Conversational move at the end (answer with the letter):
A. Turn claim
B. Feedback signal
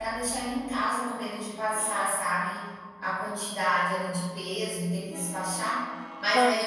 B